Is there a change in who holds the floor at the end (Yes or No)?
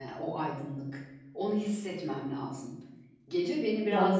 No